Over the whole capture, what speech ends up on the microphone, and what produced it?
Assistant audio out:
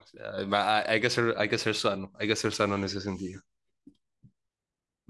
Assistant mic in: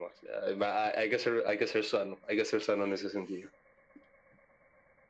echo only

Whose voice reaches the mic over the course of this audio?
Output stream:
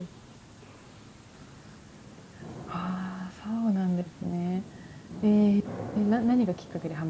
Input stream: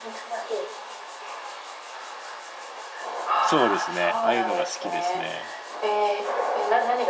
both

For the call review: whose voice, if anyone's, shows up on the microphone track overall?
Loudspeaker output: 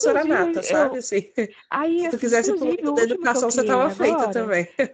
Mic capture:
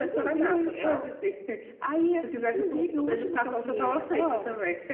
echo only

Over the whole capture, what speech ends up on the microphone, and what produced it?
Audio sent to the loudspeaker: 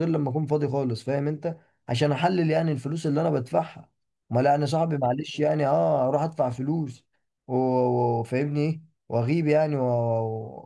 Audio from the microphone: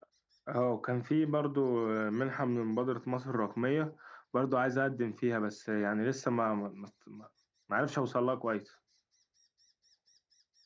user only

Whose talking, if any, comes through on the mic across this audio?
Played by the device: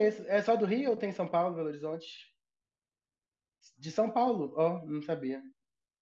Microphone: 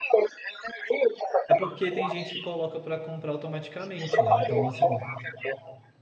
both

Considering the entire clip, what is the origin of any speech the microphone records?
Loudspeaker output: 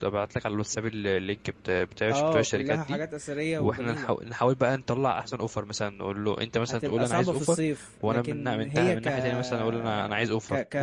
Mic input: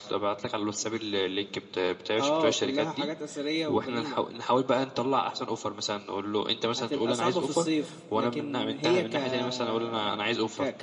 echo only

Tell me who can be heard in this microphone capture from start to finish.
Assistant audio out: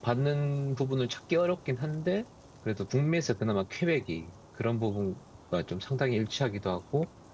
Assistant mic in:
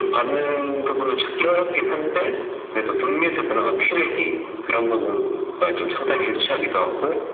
echo only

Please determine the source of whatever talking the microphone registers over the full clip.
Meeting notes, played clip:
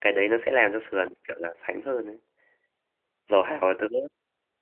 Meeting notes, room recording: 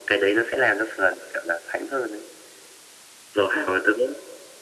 echo only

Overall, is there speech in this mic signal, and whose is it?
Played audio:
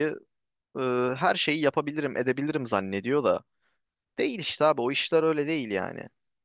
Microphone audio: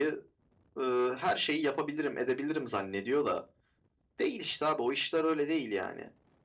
echo only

